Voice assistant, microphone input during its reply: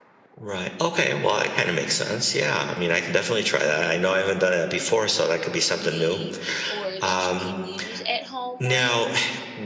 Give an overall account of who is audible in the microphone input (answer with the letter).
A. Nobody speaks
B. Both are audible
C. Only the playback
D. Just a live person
B